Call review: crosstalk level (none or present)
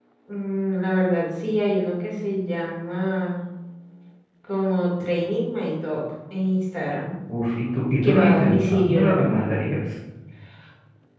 present